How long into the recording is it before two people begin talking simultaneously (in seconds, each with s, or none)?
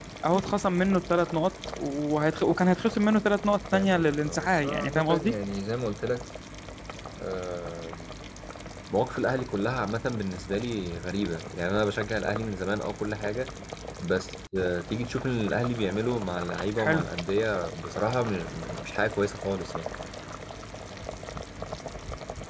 3.7 s